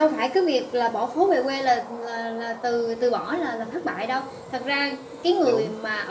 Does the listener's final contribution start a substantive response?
No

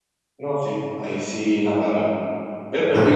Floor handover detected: No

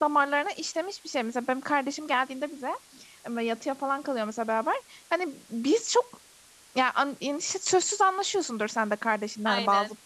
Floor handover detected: No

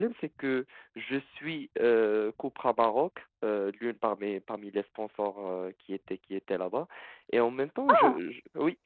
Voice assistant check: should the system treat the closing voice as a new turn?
No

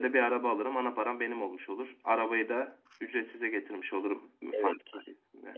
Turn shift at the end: Yes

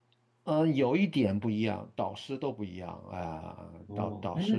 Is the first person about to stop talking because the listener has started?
Yes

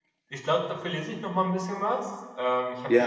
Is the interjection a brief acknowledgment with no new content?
Yes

